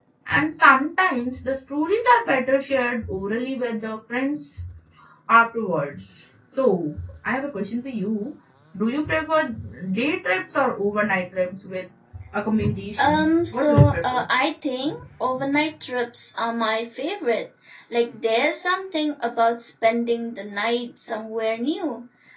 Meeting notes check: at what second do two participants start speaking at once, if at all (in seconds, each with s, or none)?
13.0 s